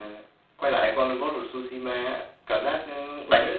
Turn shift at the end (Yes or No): No